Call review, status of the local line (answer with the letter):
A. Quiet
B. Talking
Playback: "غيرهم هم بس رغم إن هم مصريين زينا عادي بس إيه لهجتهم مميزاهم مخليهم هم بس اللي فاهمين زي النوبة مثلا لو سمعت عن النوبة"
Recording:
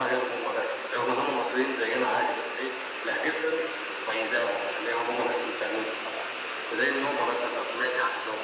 A